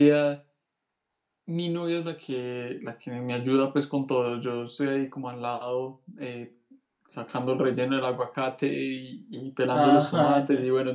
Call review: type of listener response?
listening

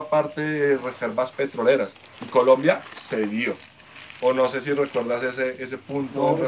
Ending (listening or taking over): taking over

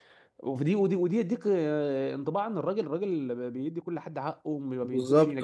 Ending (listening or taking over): listening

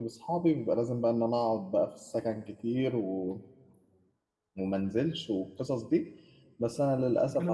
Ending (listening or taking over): taking over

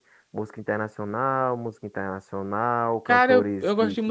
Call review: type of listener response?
taking over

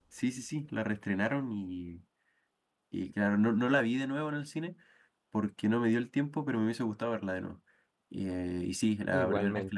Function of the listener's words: listening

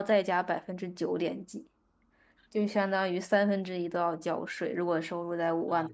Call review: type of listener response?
taking over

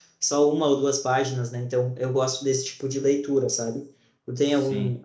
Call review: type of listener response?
listening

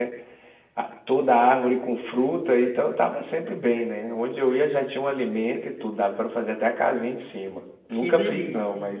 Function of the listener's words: listening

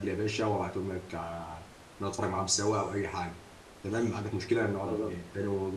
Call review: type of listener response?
listening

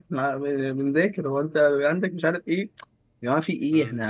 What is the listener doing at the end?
listening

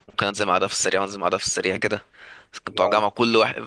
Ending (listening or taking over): listening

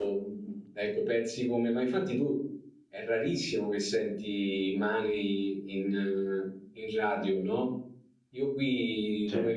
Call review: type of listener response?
listening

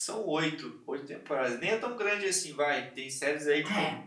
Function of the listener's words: listening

